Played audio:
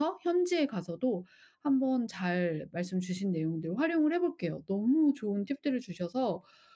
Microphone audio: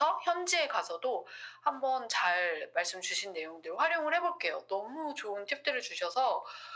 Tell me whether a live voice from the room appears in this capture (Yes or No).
No